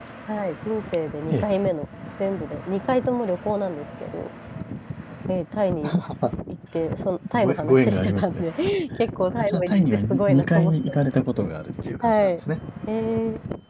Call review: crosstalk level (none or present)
present